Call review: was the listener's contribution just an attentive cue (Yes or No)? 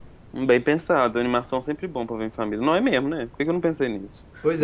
No